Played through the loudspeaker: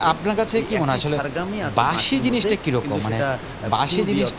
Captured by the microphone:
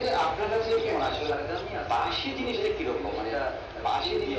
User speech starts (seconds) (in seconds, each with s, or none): none